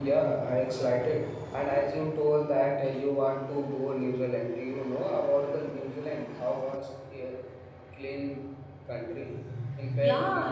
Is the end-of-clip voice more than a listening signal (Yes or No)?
Yes